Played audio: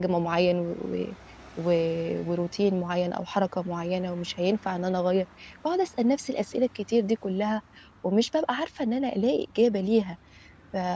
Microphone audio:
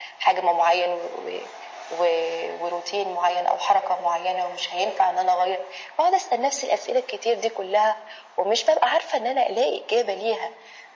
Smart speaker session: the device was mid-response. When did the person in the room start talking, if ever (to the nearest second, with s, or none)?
none